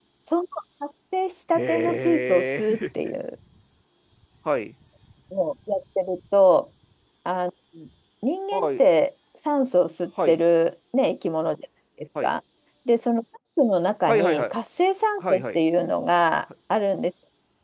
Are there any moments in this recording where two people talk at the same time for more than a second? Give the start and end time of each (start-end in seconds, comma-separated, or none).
1.6-2.8